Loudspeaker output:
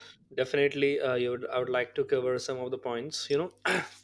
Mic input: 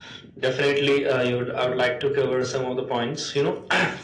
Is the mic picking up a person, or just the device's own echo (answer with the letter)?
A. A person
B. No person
B